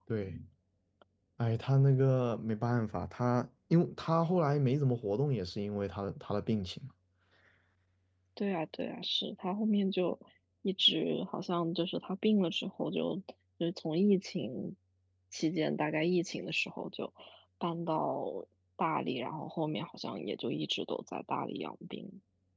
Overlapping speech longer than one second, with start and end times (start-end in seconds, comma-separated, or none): none